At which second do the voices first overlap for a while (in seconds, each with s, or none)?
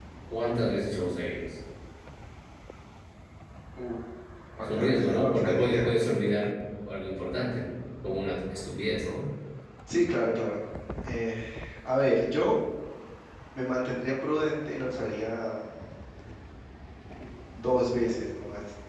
4.6 s